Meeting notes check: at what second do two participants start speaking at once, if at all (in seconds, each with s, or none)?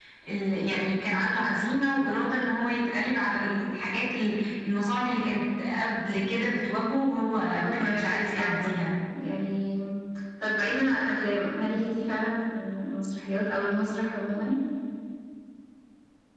7.5 s